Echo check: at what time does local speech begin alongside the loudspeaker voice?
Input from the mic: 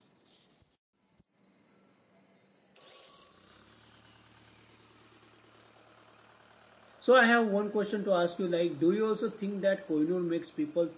7.0 s

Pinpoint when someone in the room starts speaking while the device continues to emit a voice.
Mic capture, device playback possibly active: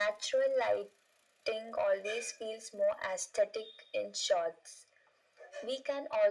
none

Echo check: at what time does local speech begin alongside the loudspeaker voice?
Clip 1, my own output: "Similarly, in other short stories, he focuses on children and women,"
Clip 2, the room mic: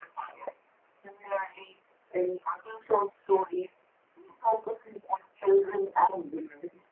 none

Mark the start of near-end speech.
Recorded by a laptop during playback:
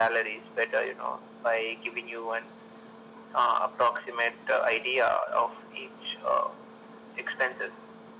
none

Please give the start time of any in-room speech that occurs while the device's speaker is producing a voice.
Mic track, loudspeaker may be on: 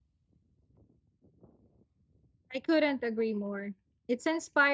2.5 s

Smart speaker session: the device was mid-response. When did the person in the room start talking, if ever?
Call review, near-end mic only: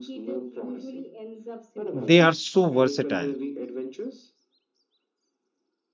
1.9 s

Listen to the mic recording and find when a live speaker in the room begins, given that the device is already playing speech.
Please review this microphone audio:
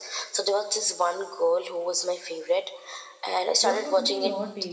3.6 s

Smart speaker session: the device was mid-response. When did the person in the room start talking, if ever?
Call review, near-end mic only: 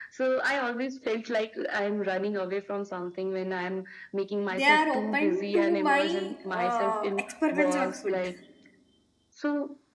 4.5 s

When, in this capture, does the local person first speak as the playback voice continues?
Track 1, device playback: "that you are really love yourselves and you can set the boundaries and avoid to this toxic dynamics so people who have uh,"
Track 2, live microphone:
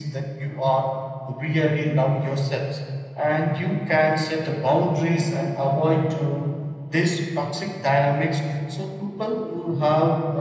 none

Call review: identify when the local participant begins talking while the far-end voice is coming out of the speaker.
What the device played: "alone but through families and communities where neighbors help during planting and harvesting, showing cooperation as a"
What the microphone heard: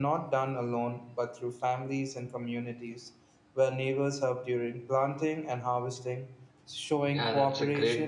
7.1 s

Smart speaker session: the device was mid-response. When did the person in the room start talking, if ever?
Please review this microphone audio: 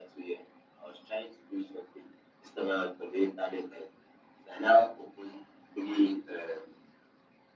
none

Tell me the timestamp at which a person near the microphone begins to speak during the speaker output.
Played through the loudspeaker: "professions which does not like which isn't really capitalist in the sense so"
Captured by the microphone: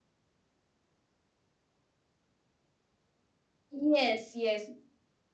3.7 s

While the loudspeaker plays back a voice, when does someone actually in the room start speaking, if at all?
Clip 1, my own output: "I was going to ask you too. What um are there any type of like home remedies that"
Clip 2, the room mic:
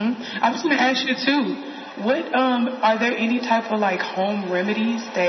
none

